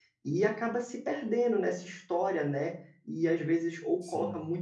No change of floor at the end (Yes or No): Yes